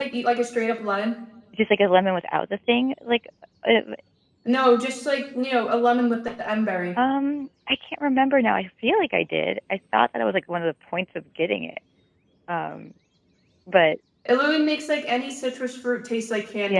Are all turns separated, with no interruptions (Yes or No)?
Yes